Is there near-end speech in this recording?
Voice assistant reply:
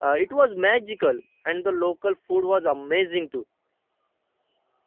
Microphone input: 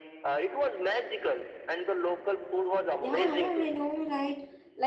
Yes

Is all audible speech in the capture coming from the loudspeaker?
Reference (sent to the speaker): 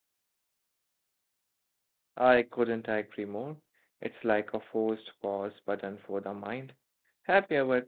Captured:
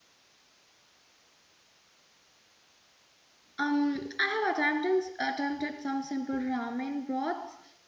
No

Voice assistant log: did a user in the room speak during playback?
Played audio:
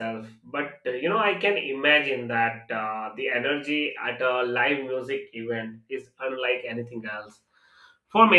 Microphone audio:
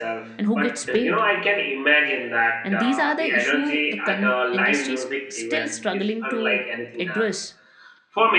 Yes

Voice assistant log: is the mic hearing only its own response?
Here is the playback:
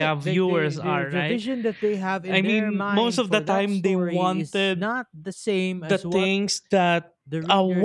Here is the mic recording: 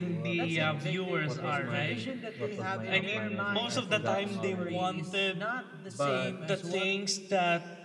No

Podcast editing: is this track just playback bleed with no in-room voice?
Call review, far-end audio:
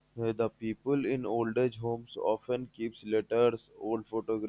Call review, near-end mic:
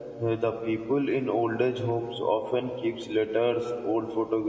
Yes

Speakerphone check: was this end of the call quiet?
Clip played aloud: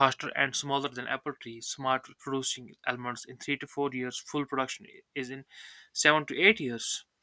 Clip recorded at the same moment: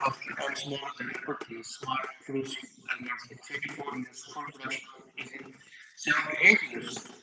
Yes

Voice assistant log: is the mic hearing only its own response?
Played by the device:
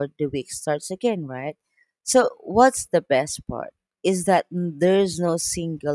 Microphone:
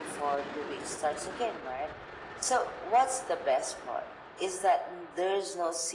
Yes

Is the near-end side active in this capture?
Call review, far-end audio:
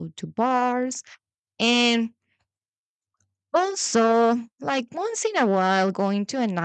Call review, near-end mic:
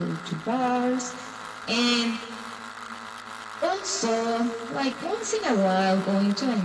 No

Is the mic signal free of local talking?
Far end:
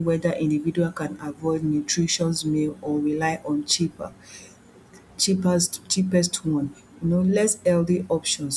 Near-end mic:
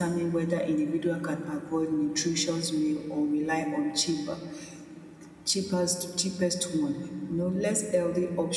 Yes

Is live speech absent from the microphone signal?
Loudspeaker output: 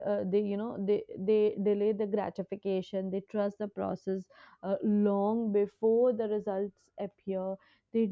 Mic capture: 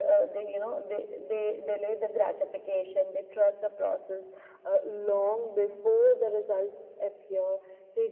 Yes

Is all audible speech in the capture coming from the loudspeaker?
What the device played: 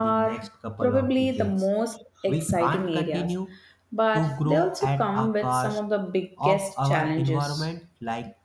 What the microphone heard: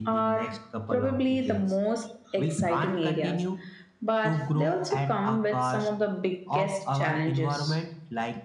Yes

